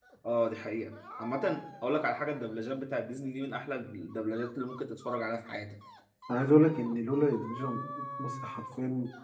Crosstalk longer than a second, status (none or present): none